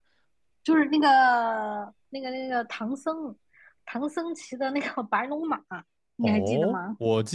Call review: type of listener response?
taking over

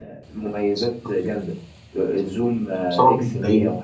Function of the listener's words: listening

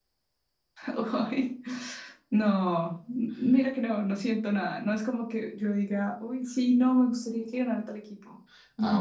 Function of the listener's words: taking over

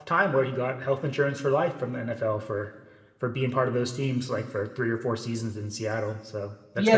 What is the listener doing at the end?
taking over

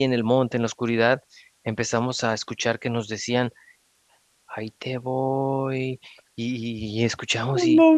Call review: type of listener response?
listening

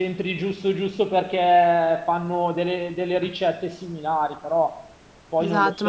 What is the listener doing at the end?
taking over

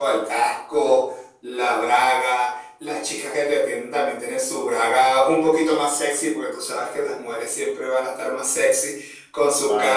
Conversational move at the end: listening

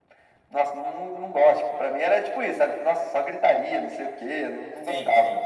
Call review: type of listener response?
listening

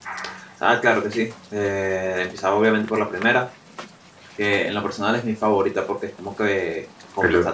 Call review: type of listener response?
listening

